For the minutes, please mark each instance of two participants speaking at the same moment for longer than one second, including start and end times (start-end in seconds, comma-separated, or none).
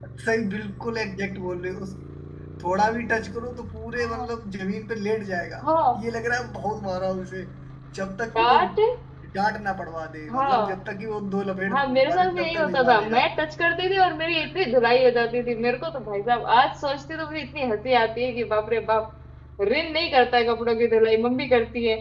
11.7-13.2